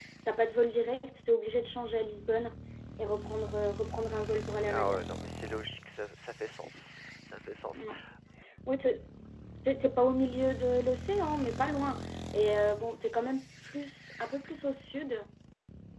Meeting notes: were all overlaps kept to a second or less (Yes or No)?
Yes